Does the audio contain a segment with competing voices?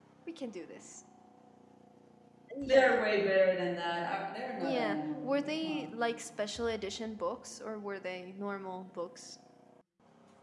Yes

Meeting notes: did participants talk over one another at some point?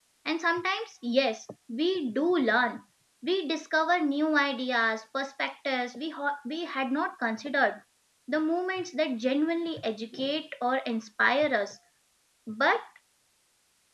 No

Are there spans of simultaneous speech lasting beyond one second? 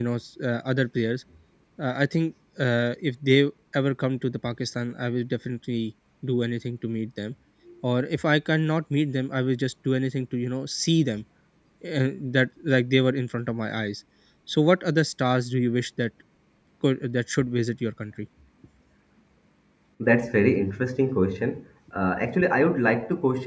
No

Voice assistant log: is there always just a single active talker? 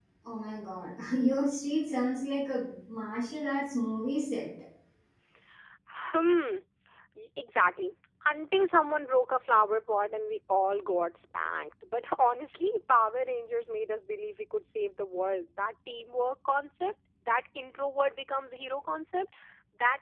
Yes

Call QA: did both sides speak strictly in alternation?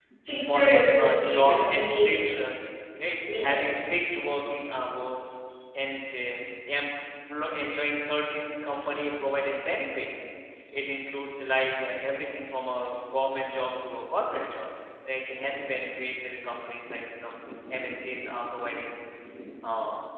No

